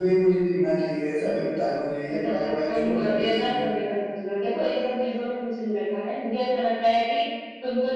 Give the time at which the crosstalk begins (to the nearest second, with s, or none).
2 s